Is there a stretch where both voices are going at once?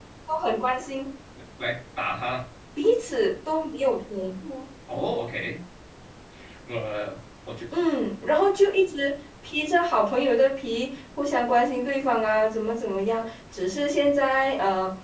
No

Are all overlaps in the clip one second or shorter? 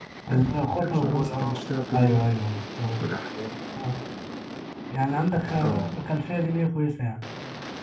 No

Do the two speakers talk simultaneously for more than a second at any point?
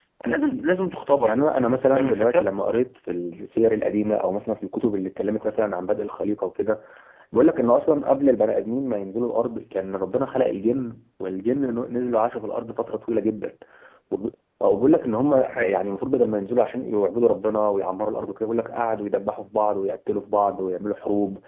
Yes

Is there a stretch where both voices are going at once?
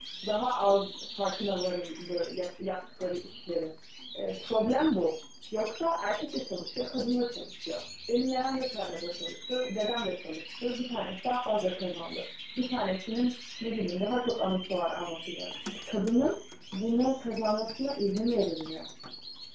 No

